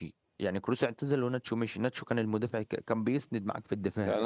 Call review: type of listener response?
taking over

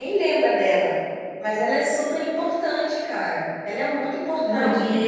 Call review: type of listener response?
taking over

